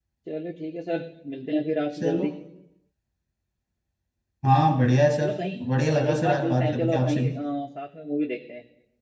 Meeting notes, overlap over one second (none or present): present